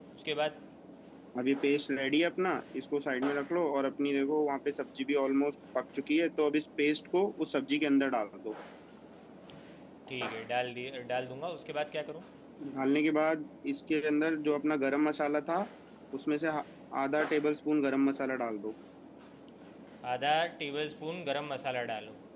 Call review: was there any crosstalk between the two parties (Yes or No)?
No